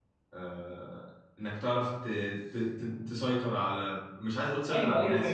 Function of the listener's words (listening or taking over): taking over